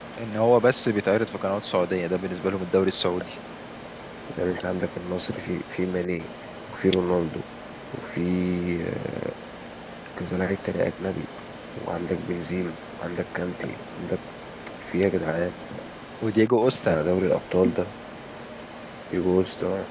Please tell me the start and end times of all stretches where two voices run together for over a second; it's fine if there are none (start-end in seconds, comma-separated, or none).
none